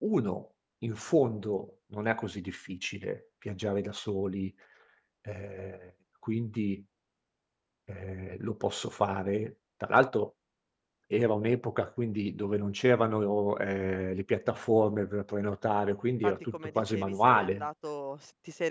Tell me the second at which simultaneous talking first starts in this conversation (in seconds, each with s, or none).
16.2 s